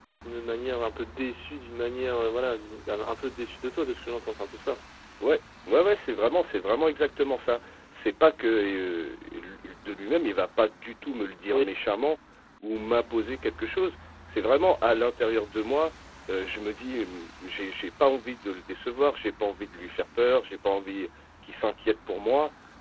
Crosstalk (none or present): none